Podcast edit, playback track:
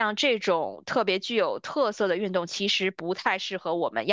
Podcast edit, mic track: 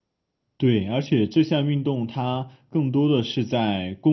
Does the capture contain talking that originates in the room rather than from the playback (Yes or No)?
Yes